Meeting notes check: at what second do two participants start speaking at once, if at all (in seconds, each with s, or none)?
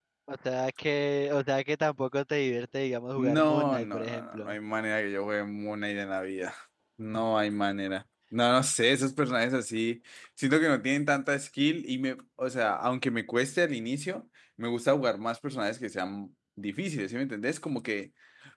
3.2 s